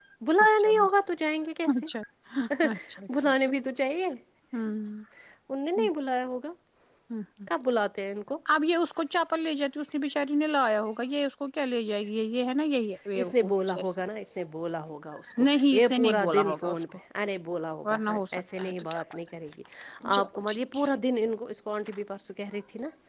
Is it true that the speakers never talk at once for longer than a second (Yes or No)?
No